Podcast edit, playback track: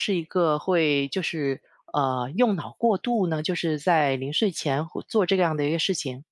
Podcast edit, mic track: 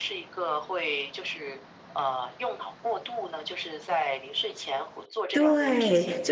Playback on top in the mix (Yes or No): No